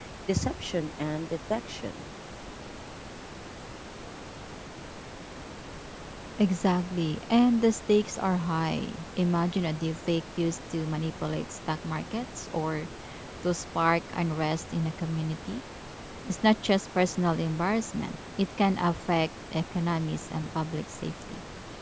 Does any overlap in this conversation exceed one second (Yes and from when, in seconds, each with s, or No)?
No